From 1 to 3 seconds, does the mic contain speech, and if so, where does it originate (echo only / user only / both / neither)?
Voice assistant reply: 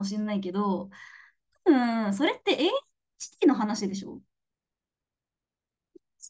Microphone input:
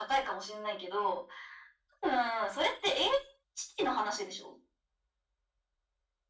echo only